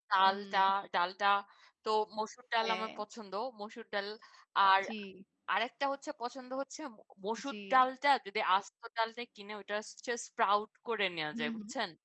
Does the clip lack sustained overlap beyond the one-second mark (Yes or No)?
Yes